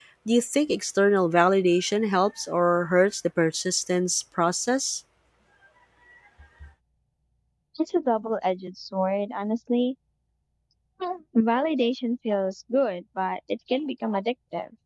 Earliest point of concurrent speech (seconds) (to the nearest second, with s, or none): none